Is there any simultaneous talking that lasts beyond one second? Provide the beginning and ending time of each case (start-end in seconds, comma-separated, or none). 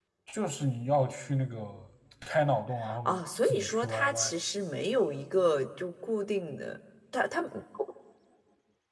3.0-4.3